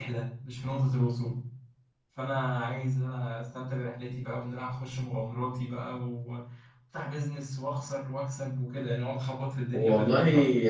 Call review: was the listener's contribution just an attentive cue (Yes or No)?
No